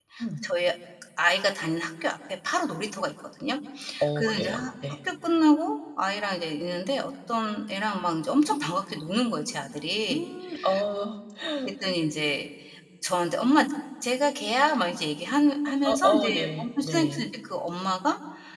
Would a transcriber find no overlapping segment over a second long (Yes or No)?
No